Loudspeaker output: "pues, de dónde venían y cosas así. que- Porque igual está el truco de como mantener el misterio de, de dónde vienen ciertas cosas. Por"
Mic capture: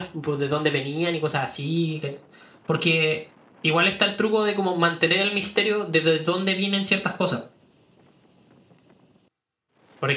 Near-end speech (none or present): none